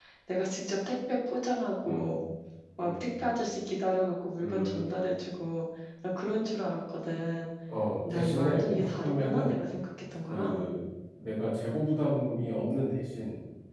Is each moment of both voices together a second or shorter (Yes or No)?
No